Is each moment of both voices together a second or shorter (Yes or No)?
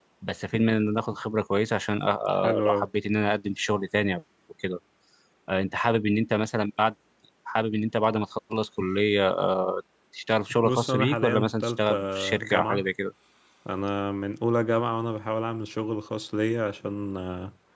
No